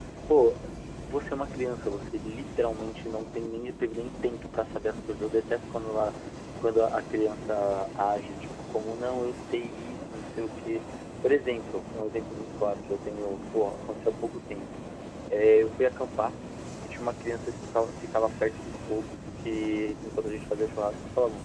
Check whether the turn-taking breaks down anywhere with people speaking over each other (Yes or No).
No